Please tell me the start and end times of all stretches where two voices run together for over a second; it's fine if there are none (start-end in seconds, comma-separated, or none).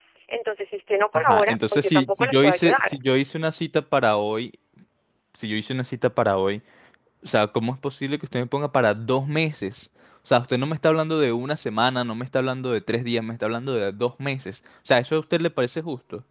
1.1-3.0